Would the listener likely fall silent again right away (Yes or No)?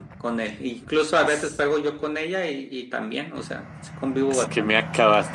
No